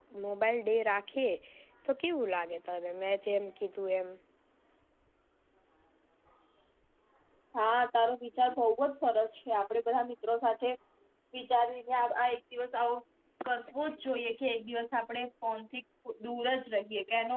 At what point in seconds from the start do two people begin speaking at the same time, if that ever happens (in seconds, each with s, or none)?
none